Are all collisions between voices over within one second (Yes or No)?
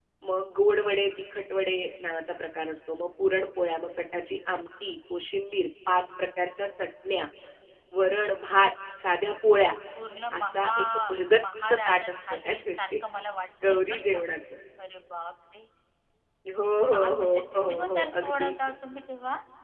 No